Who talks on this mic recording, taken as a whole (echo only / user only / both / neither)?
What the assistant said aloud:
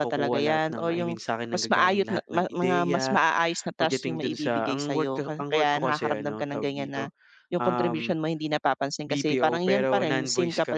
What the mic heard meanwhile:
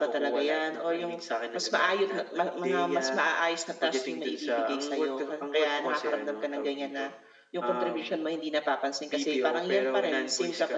echo only